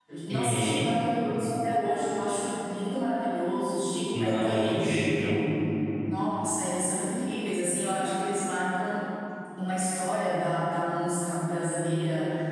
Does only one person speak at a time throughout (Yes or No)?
No